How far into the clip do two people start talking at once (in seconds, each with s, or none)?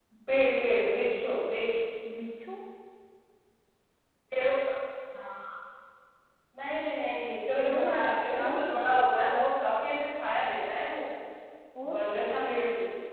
7.6 s